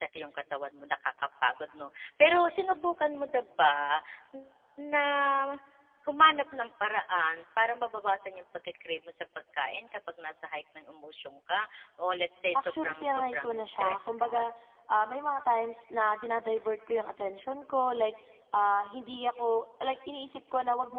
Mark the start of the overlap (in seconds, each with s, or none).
12.6 s